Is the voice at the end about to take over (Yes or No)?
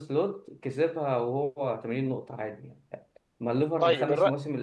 No